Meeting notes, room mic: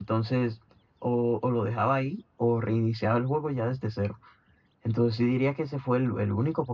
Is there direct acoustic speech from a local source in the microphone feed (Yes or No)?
Yes